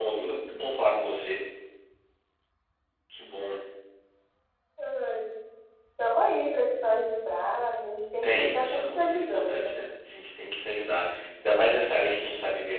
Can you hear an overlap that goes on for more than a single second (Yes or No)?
Yes